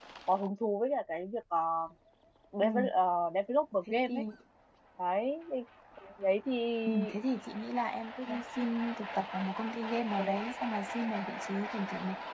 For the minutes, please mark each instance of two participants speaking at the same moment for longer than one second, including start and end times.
none

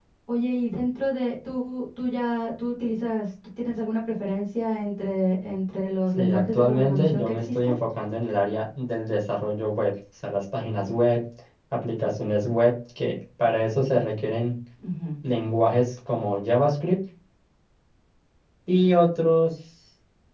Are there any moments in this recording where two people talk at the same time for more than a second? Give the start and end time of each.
6.2-7.7

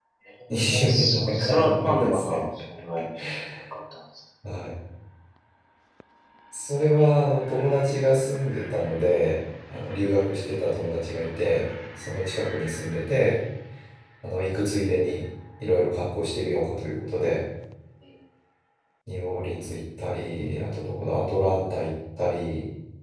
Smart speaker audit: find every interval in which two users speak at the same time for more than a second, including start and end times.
0.7-2.2

